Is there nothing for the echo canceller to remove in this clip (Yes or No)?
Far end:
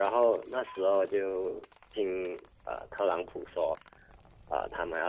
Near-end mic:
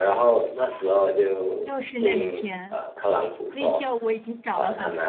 No